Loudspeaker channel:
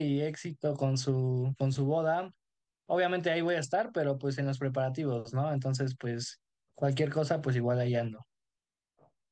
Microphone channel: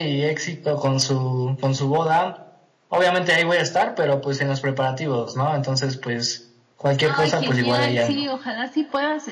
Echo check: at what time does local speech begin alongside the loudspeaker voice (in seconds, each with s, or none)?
7.0 s